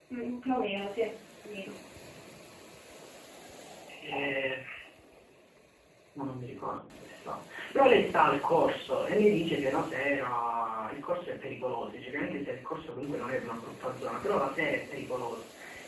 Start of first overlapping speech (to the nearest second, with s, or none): none